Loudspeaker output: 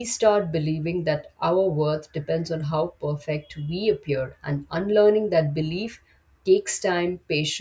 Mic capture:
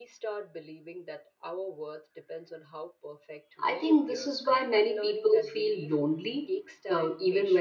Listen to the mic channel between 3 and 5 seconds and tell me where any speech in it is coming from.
both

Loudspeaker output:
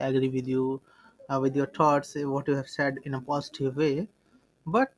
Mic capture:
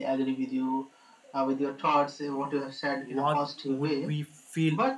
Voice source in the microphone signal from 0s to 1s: echo only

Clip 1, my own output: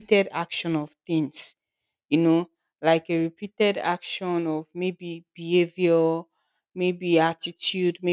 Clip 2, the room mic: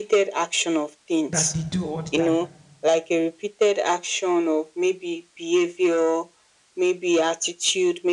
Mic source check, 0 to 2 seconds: both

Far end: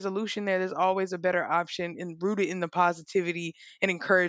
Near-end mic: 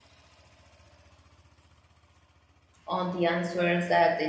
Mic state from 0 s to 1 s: neither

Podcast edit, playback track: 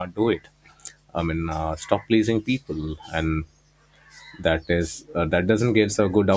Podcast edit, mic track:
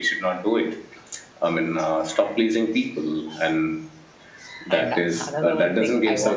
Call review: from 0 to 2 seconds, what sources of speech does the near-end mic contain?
echo only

